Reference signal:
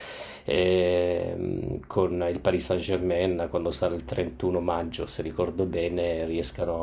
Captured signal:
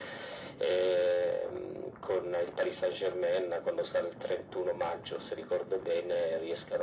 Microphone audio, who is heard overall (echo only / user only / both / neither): echo only